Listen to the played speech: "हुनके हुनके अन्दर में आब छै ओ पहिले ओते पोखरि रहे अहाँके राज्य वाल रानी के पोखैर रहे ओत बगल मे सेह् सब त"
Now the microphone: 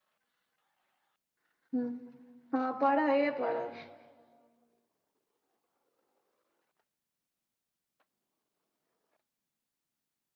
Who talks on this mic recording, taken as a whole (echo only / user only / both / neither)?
user only